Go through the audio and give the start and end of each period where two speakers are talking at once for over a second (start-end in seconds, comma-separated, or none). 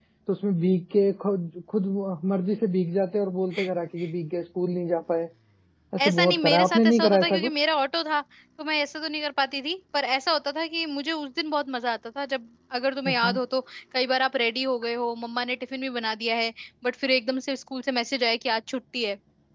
6.0-7.5